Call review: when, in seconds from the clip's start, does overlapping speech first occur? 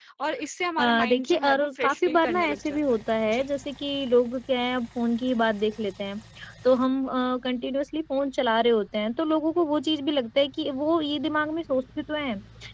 1 s

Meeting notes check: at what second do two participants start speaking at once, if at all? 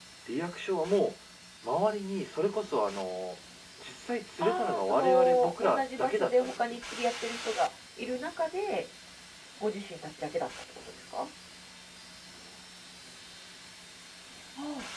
4 s

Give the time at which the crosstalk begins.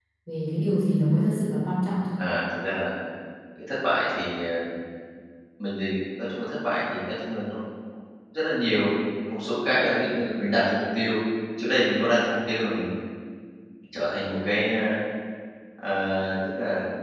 none

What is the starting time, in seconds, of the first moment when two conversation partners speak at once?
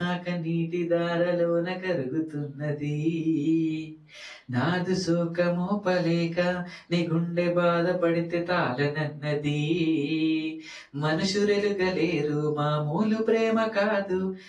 none

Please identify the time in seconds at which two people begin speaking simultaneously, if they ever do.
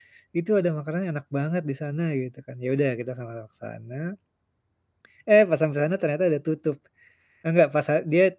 none

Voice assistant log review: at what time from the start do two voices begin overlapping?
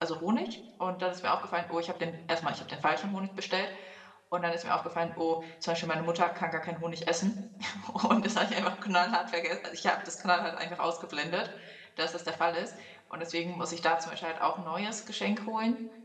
none

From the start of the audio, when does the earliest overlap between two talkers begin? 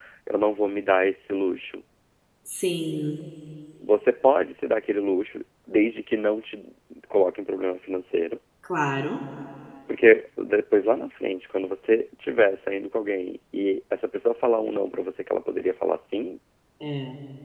none

